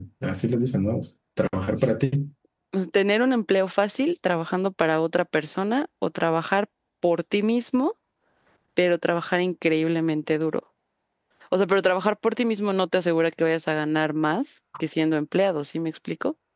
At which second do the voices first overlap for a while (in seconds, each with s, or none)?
none